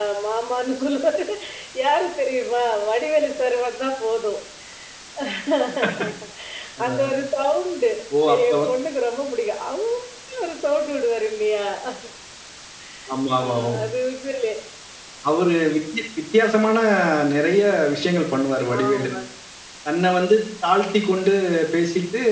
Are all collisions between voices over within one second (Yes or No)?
Yes